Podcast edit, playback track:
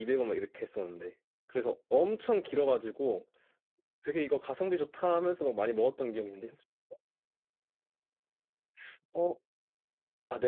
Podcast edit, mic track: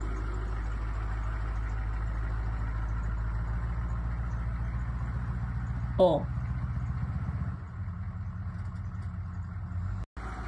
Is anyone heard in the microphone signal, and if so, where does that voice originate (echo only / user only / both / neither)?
user only